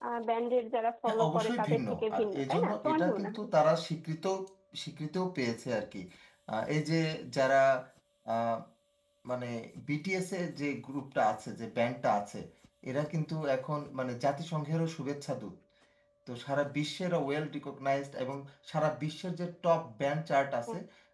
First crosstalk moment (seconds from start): 1.1 s

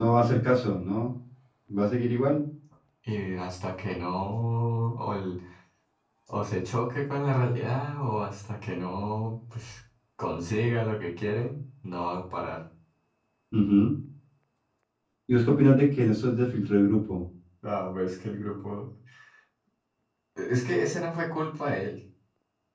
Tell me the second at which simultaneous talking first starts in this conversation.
none

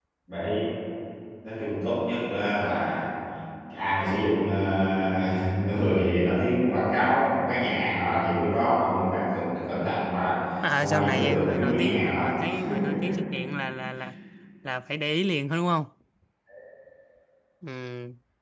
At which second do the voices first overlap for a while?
10.8 s

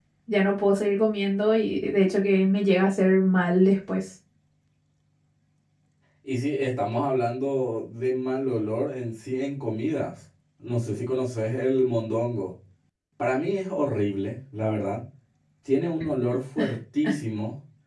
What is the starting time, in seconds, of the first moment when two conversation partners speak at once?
none

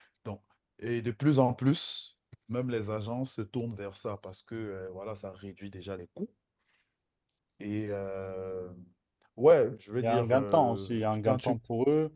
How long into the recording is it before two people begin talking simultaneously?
9.9 s

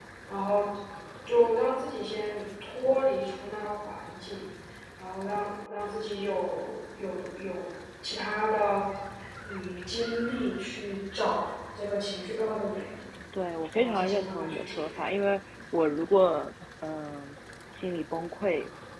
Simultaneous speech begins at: 13.8 s

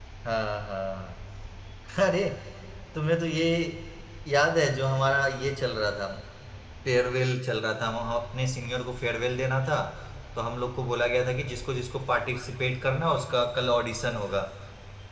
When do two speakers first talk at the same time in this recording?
none

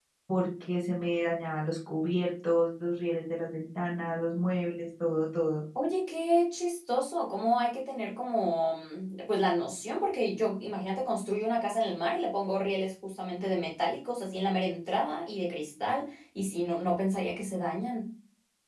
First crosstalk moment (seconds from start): none

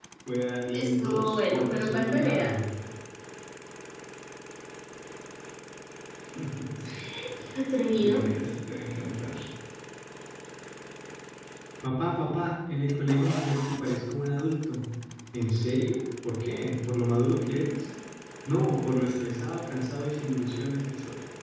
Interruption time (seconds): 0.7 s

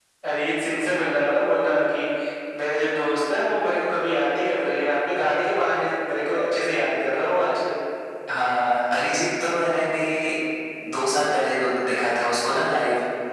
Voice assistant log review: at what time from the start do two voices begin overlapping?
none

